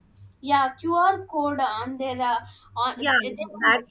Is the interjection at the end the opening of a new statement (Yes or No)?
Yes